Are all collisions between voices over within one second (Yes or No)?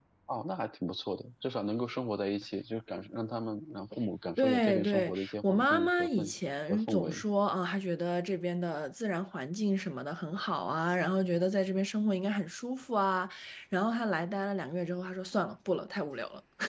No